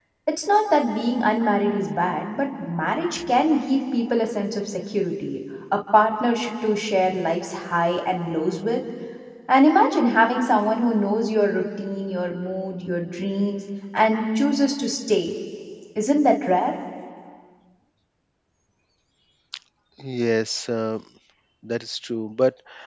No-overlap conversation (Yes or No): Yes